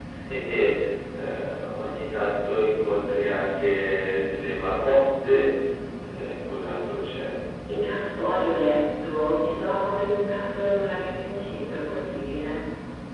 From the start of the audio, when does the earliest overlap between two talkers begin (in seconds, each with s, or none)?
none